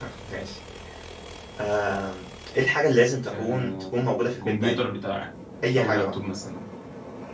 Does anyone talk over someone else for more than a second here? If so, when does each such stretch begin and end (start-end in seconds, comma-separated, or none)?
3.3-4.8